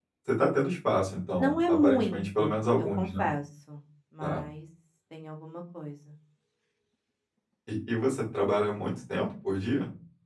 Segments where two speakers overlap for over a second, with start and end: 1.4-3.2

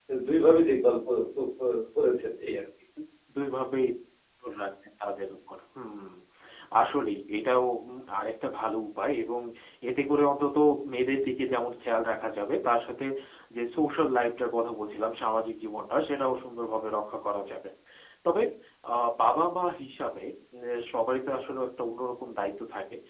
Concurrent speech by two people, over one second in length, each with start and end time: none

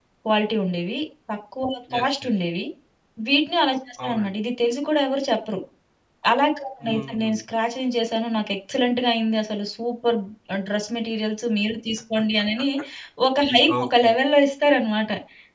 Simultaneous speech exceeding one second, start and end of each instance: none

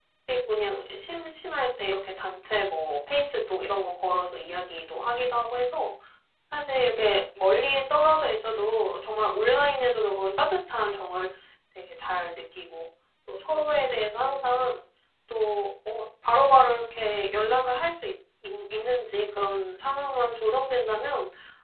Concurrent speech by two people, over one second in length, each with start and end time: none

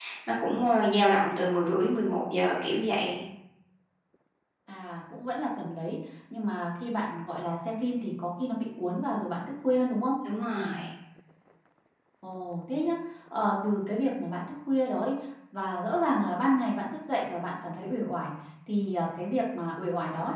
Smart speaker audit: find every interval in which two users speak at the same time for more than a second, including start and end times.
none

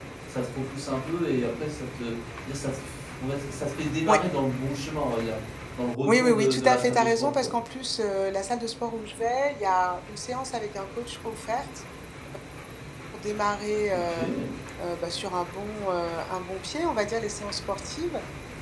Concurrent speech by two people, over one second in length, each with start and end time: 6.1-7.5

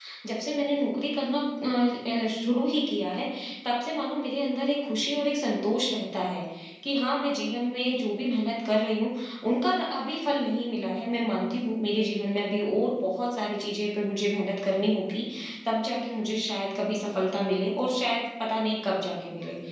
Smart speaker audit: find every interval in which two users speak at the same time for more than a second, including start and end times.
none

